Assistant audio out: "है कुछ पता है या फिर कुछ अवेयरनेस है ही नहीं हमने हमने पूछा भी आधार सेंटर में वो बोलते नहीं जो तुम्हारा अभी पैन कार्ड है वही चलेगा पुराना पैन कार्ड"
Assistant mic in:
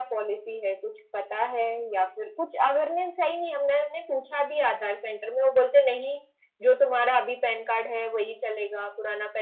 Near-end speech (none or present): none